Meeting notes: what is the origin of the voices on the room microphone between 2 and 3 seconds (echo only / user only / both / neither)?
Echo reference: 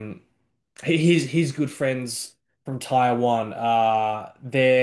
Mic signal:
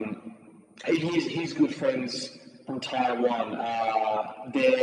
echo only